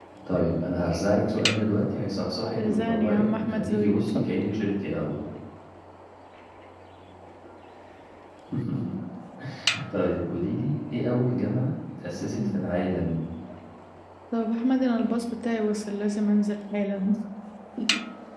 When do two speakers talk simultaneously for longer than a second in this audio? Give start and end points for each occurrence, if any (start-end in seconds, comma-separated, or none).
2.6-4.2